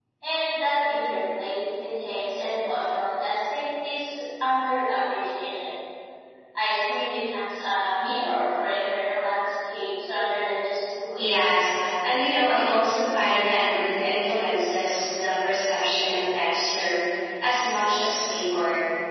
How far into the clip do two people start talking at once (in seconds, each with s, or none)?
none